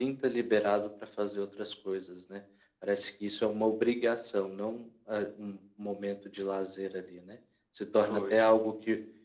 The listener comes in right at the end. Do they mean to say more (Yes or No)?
No